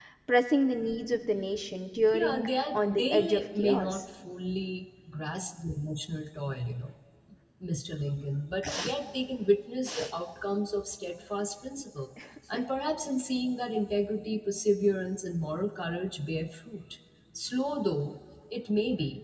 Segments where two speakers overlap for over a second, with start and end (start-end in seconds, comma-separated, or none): 2.1-4.0